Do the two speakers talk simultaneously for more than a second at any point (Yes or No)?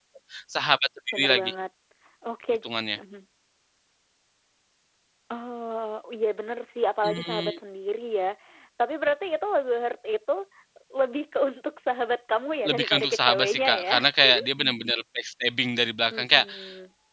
Yes